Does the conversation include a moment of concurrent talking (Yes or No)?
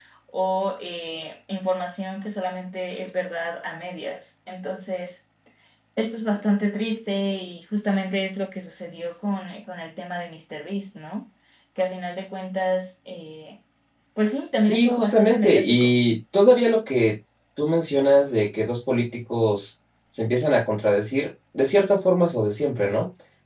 Yes